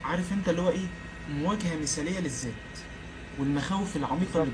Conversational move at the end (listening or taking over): taking over